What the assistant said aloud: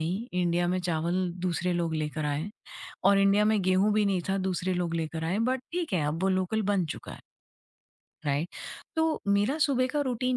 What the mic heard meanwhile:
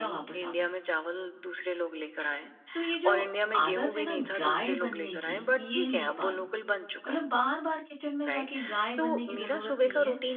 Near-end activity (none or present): present